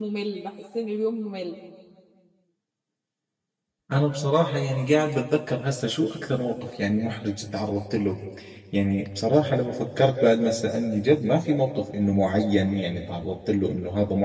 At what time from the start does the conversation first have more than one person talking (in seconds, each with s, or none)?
none